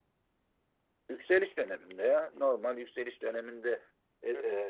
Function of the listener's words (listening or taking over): listening